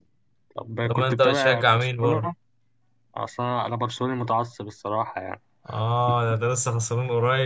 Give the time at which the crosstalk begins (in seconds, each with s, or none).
0.8 s